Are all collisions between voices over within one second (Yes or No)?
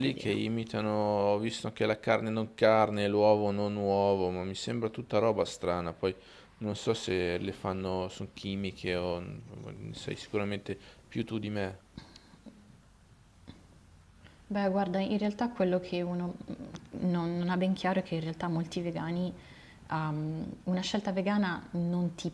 Yes